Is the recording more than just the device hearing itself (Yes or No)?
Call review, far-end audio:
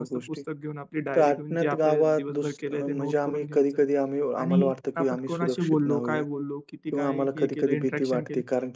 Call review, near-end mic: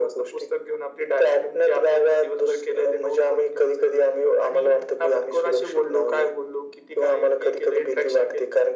No